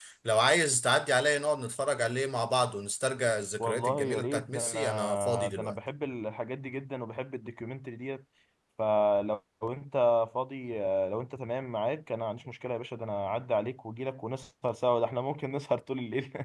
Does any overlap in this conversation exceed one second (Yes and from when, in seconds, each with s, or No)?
Yes, from 3.6 s